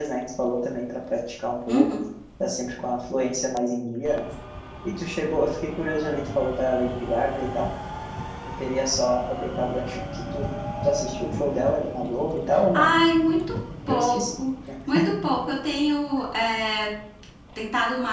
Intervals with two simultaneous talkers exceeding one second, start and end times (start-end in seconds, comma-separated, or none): none